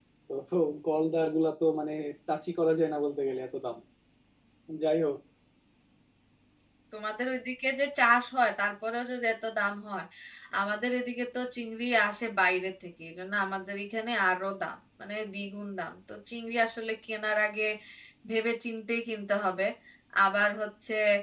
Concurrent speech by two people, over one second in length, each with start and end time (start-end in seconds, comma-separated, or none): none